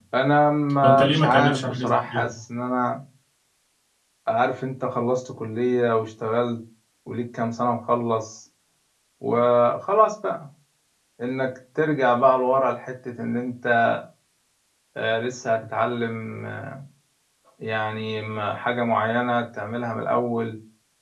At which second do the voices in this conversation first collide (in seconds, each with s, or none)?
0.8 s